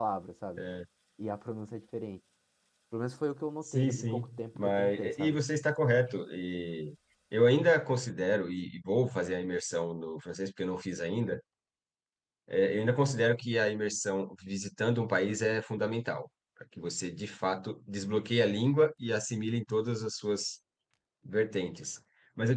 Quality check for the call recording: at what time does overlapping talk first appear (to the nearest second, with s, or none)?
4 s